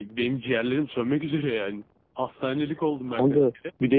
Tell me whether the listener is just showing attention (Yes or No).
No